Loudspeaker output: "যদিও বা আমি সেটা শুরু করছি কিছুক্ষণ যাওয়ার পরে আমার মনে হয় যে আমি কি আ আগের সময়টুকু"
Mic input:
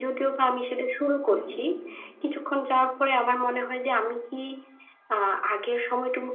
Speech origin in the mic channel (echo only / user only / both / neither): both